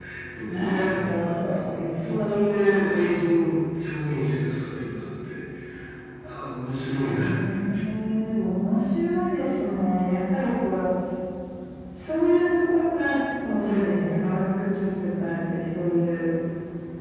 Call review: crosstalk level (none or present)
present